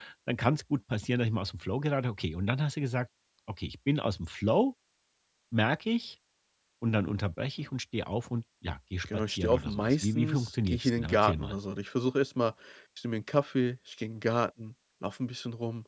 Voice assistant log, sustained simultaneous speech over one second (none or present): present